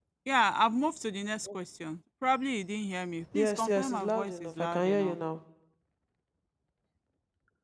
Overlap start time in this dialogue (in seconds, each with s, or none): 3.2 s